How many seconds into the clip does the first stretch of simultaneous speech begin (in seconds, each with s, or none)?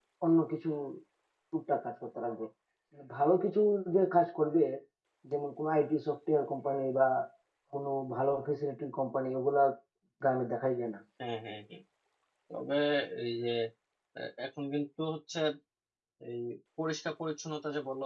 none